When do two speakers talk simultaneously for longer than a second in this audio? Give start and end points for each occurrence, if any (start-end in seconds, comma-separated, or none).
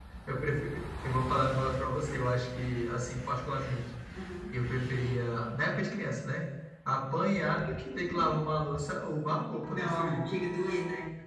none